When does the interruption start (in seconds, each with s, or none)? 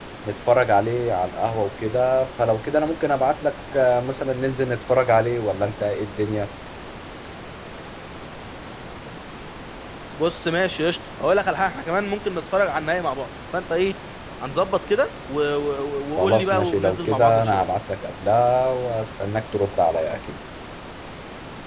16.2 s